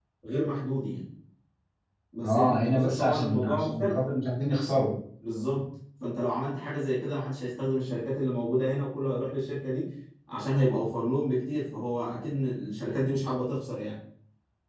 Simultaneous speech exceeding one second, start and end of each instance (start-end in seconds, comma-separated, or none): 2.2-4.0